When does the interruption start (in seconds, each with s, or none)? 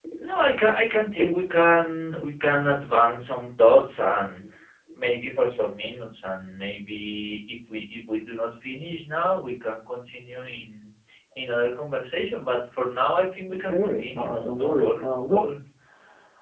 13.4 s